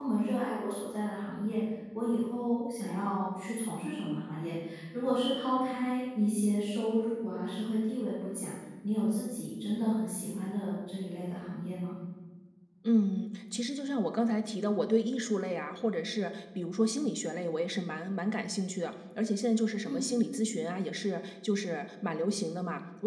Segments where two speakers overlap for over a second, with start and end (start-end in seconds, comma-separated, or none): none